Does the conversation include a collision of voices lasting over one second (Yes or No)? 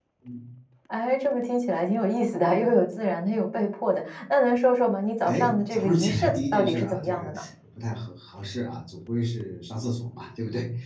Yes